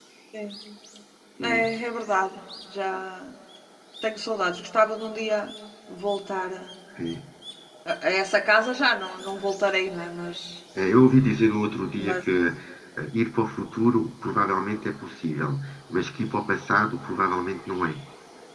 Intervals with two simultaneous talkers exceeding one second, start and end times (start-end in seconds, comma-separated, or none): none